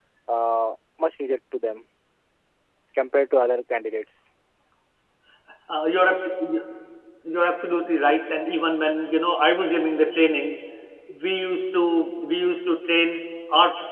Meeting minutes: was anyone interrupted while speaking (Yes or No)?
No